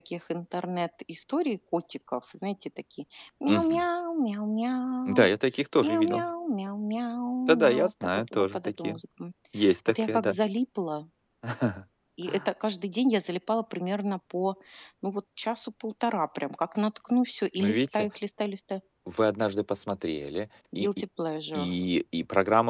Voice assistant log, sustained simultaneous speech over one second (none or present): present